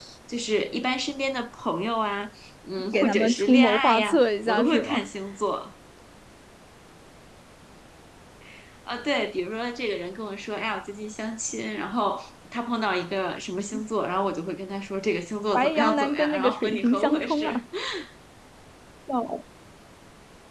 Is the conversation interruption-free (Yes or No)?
No